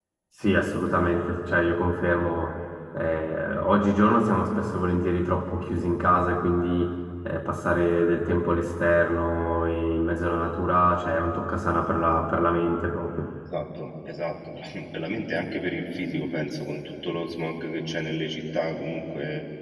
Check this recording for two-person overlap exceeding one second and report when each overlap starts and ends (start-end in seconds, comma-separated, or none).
none